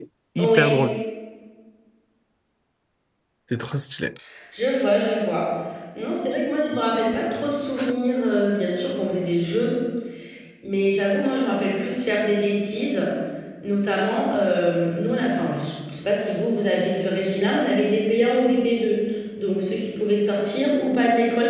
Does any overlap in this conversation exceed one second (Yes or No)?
No